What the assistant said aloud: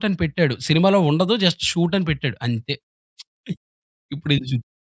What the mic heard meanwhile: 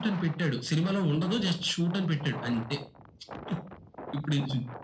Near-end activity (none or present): none